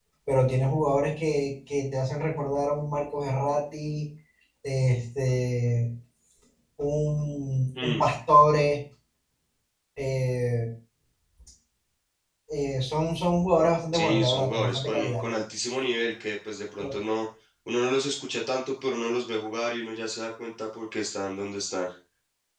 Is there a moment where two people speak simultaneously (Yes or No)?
Yes